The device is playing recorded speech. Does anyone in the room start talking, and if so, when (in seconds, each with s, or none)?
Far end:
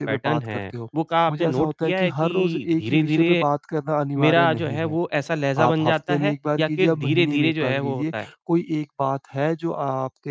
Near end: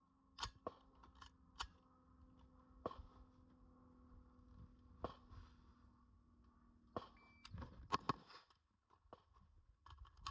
none